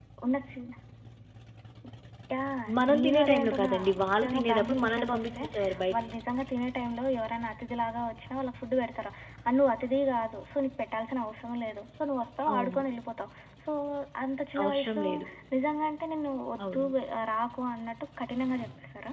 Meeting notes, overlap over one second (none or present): present